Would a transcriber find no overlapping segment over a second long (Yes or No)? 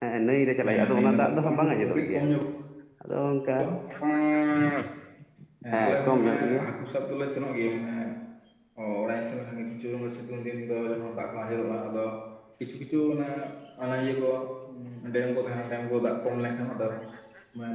No